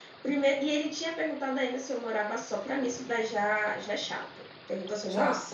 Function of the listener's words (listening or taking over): listening